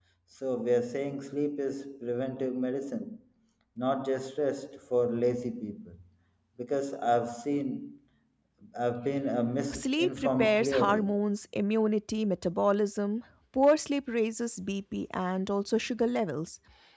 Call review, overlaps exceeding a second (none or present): present